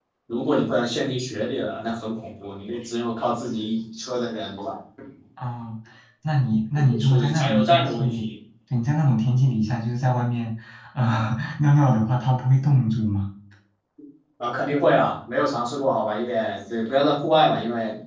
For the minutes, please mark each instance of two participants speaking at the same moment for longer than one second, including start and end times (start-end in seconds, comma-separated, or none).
7.0-8.2